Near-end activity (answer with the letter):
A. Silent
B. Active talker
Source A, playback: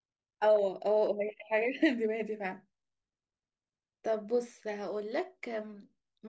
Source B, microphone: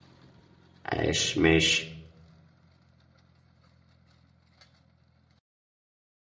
B